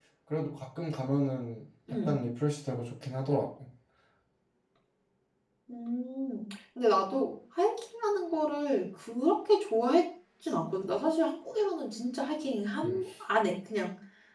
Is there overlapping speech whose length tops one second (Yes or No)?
No